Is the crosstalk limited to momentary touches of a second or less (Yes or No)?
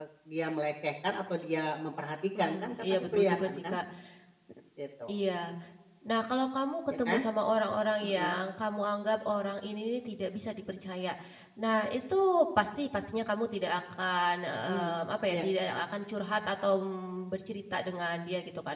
No